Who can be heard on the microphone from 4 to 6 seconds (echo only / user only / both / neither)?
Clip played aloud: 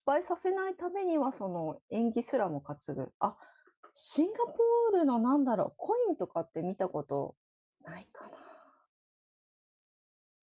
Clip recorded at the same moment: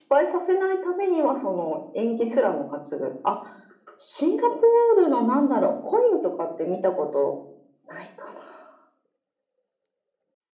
echo only